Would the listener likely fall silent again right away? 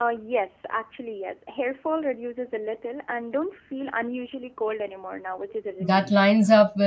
No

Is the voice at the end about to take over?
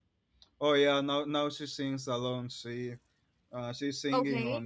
No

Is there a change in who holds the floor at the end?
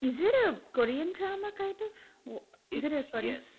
Yes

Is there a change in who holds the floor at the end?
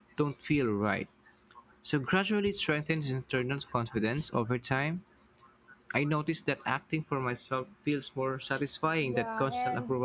Yes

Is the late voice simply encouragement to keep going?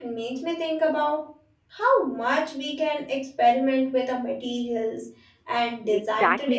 No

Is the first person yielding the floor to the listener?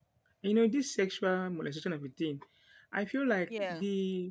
No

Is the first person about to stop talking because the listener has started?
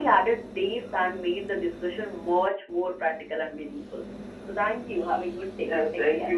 Yes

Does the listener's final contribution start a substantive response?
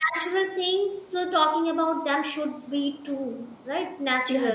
Yes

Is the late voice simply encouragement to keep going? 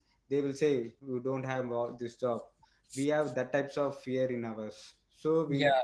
Yes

